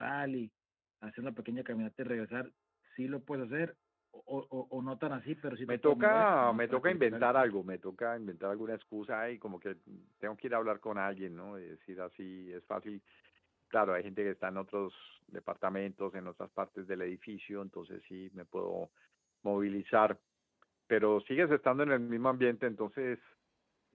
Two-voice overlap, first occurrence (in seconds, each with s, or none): 5.7 s